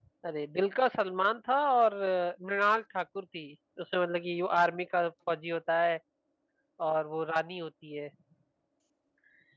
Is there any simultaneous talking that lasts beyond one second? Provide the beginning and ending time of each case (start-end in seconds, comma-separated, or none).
none